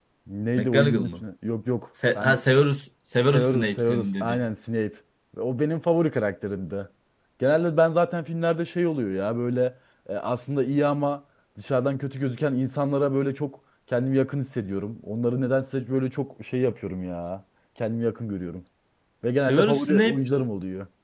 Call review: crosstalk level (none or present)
present